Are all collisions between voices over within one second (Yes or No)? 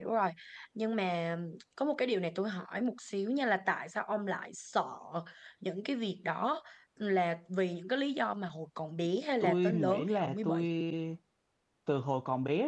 No